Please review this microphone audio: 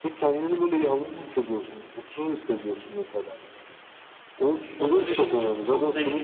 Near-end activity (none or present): present